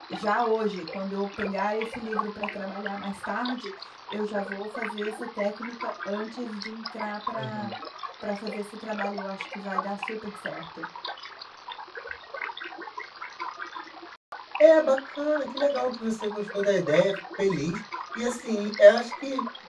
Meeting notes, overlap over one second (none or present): none